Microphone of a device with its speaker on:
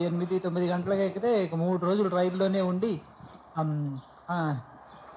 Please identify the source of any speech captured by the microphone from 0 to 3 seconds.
echo only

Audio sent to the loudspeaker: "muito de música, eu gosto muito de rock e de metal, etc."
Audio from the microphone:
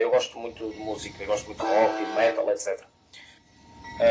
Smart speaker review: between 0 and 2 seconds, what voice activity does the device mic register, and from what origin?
echo only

